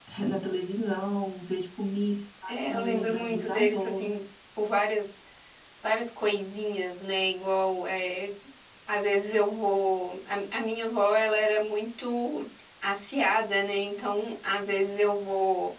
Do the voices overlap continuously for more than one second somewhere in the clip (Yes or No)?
Yes